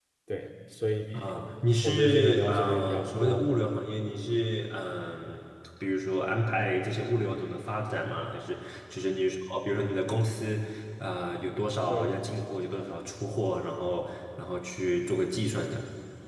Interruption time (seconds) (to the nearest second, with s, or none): 2 s